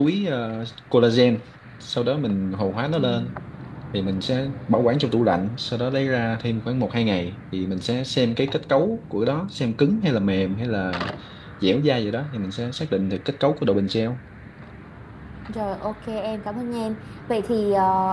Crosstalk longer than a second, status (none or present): none